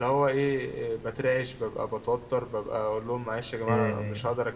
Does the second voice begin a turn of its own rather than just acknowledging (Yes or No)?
No